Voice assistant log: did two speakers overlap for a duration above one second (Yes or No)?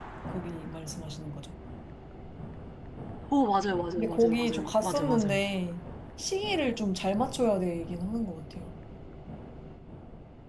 Yes